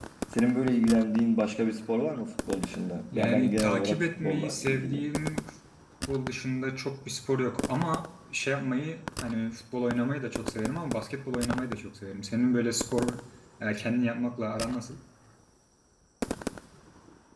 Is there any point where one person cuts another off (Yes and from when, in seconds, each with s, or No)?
Yes, from 3.1 s